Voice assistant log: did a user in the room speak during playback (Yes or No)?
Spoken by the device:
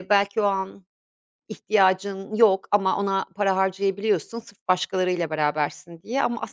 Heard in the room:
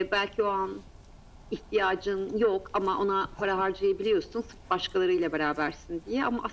No